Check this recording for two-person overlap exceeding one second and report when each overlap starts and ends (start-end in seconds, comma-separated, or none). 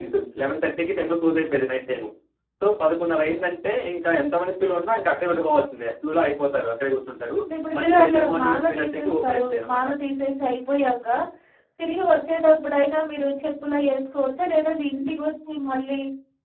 7.8-9.9